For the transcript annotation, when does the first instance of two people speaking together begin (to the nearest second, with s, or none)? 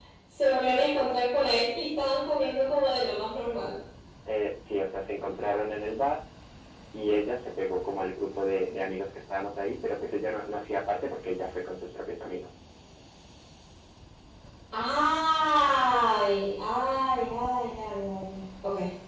none